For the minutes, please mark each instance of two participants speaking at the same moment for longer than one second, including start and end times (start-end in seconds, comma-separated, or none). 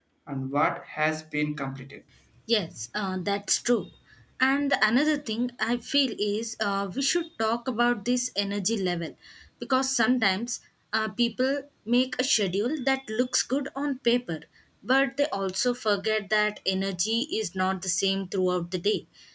none